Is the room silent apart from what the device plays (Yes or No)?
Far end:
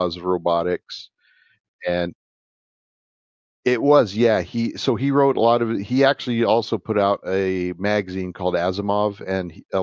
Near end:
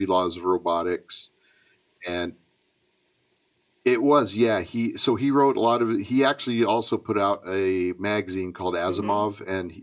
No